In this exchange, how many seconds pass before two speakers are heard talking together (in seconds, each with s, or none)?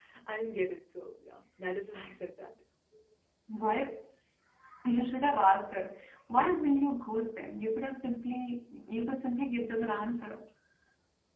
none